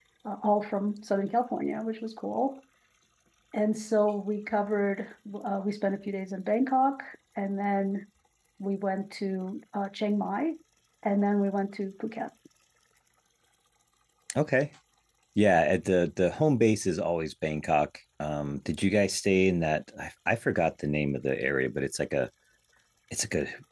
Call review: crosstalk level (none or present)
none